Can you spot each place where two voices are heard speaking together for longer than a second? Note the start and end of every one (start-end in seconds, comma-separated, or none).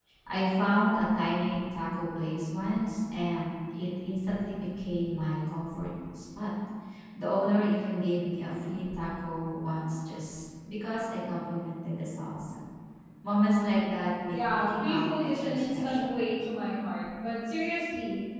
14.3-16.1